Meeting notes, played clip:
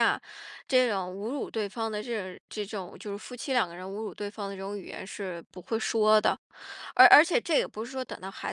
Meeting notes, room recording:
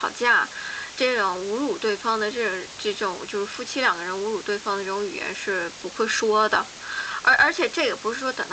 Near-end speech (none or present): none